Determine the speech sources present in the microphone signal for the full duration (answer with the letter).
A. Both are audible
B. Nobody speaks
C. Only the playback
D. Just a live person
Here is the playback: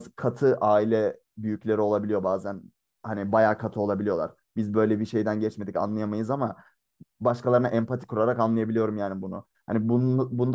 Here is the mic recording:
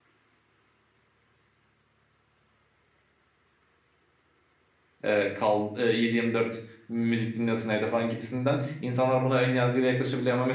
D